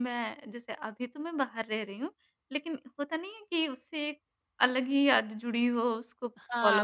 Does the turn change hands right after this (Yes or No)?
Yes